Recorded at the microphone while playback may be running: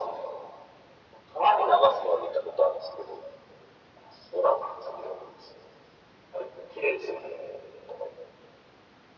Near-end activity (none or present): none